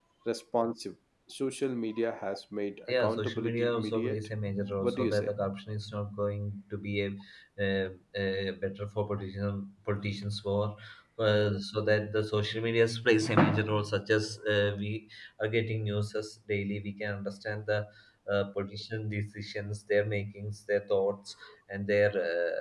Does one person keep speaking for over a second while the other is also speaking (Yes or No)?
Yes